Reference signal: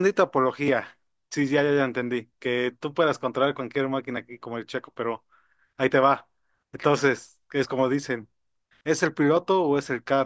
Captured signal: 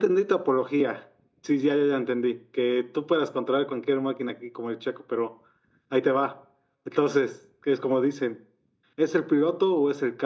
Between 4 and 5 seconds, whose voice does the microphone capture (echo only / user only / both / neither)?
echo only